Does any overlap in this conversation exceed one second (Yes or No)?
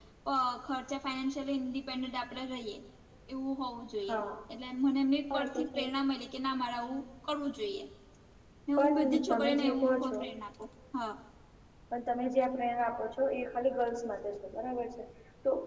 Yes